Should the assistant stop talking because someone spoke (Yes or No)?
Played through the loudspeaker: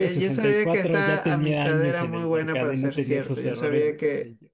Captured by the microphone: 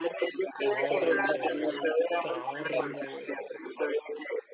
Yes